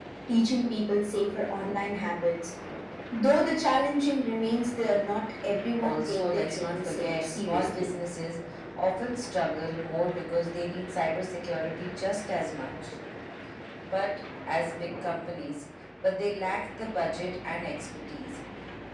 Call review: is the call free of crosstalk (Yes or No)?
No